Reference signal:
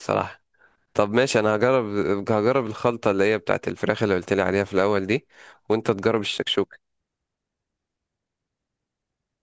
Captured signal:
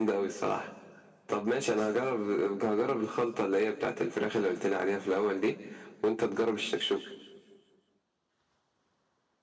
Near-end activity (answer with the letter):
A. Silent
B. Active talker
A